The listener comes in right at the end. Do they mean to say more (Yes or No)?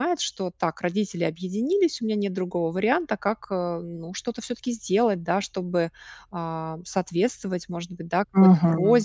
No